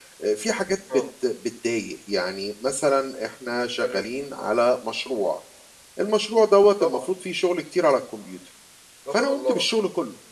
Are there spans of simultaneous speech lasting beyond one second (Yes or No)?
No